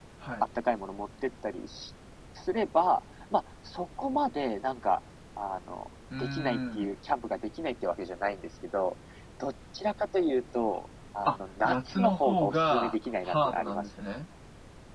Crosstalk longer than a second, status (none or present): present